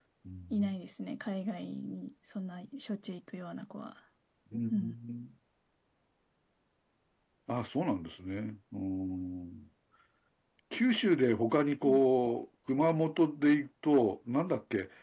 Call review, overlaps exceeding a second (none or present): none